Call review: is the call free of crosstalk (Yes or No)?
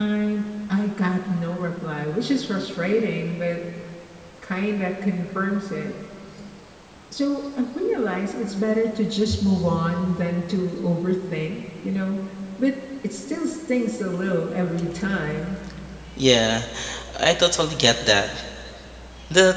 Yes